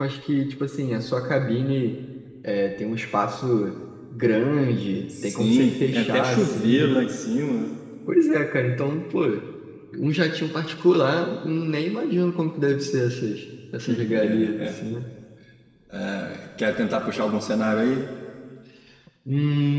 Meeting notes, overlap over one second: present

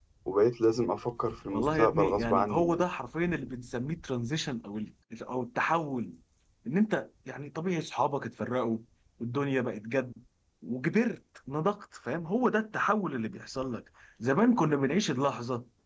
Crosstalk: present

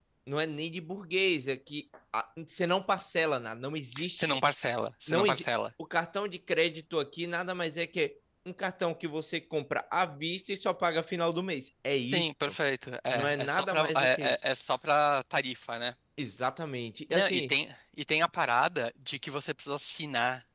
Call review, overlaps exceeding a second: present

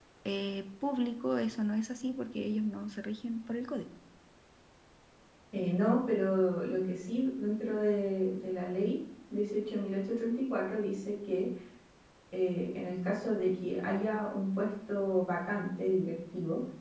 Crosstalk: none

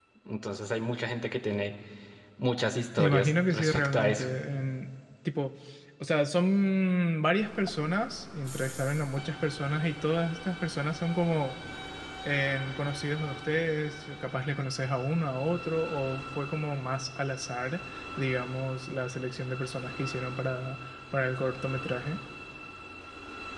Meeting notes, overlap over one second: present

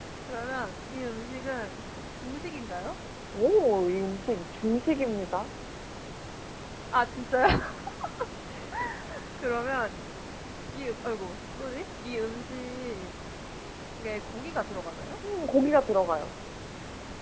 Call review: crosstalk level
none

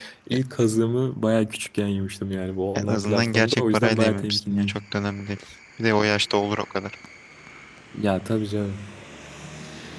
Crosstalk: present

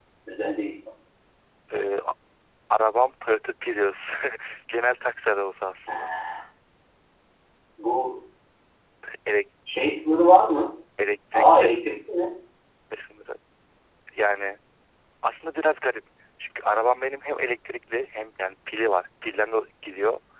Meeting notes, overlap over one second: none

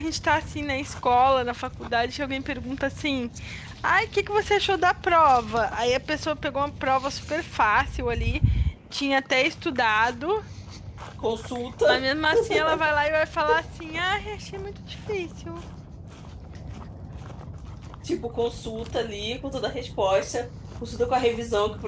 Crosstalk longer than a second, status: none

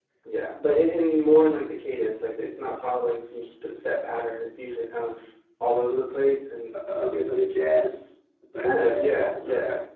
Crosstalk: present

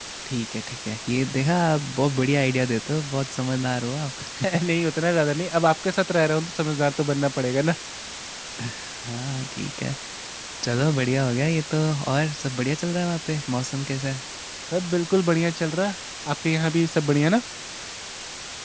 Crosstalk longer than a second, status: none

